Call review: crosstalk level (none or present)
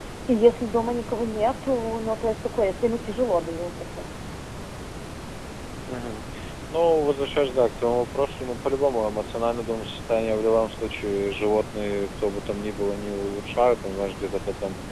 none